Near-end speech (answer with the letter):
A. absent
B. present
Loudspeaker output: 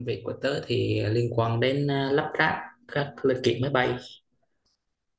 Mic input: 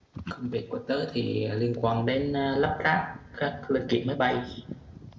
A